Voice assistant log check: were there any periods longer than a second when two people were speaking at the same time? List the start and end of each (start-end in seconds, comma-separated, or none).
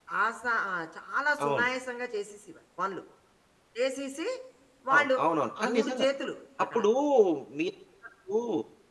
none